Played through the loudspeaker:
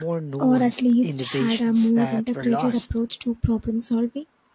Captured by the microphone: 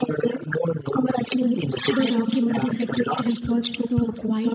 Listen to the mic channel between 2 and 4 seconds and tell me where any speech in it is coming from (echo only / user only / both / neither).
both